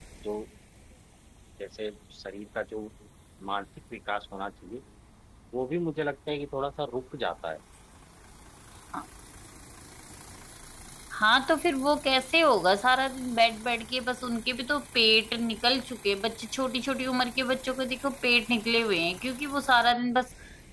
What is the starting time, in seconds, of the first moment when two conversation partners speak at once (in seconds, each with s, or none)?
none